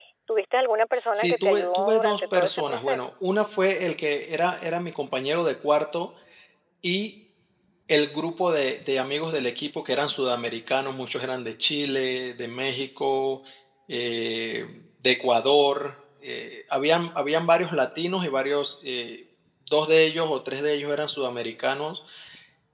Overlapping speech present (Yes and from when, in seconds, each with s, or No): Yes, from 1.2 s